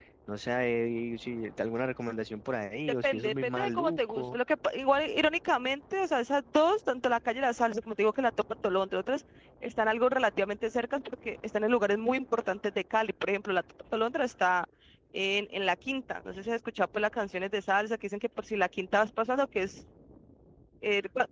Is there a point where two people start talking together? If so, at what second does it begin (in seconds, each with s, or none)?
3.0 s